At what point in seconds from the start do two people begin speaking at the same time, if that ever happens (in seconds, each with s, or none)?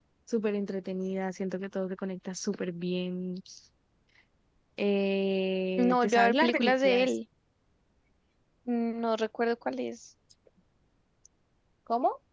5.8 s